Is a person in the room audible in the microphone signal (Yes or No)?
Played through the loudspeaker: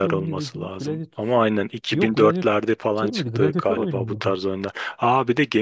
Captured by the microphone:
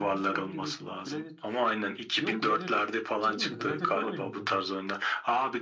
No